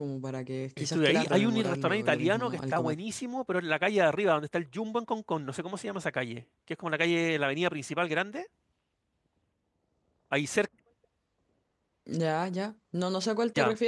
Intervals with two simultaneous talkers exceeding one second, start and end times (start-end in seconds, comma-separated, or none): 0.8-3.0